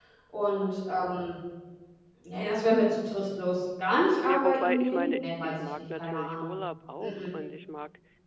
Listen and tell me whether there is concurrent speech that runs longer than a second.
Yes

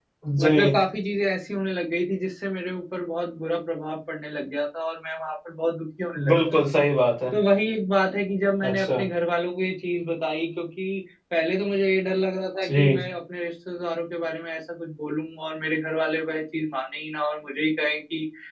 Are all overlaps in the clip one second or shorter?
Yes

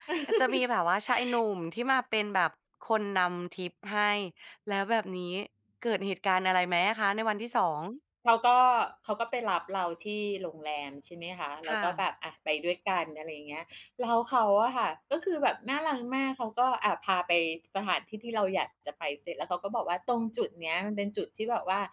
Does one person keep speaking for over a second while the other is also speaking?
No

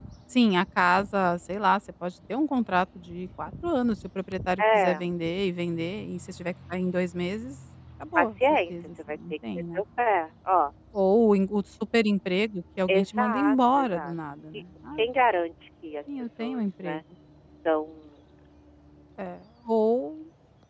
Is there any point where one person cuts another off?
Yes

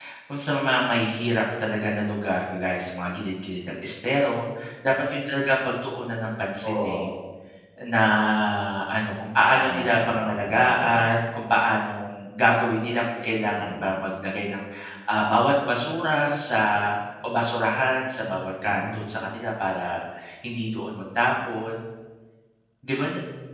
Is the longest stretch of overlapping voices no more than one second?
No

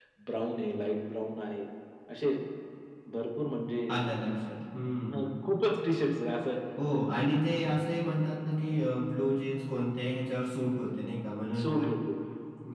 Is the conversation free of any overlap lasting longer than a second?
Yes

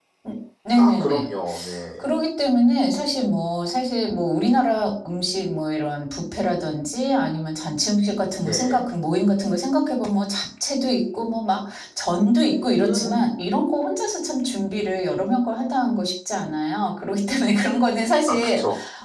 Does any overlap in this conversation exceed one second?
No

